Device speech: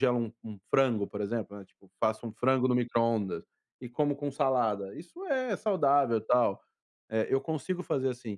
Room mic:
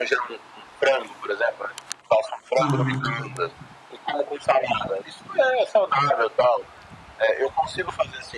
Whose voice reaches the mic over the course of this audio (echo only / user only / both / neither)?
both